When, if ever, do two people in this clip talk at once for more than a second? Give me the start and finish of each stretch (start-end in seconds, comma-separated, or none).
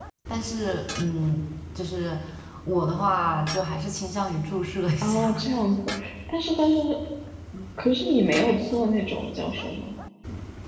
none